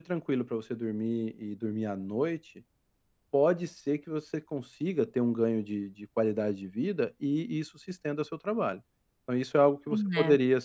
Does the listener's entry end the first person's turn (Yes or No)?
No